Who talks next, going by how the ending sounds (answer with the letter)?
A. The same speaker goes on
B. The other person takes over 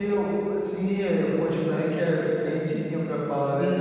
B